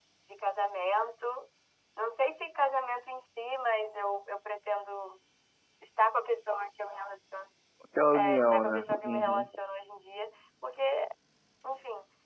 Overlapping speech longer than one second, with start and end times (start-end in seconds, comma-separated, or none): 8.1-9.5